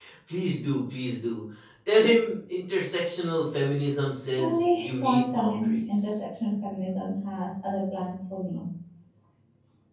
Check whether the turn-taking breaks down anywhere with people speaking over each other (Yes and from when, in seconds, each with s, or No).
Yes, from 4.4 s